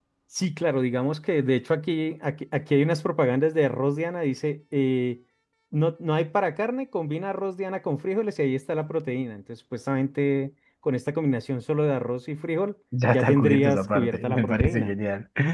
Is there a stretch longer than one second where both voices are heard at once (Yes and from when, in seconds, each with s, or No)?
Yes, from 12.9 s